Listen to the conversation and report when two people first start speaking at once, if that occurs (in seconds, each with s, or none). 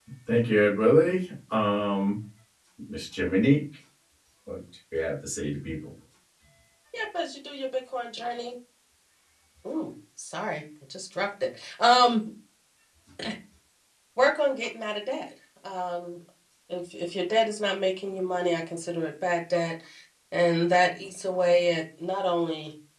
none